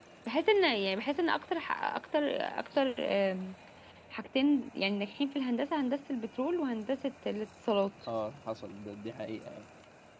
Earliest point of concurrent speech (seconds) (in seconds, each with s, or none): none